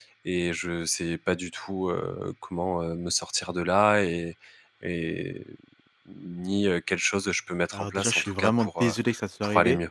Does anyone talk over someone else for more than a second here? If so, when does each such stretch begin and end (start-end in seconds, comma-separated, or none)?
7.7-9.0